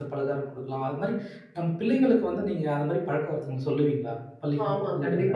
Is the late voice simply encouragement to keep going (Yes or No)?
No